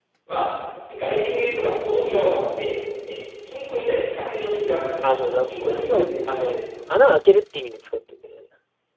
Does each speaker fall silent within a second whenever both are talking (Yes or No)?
No